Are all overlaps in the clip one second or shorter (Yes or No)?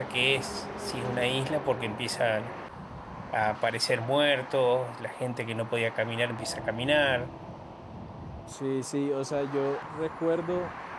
Yes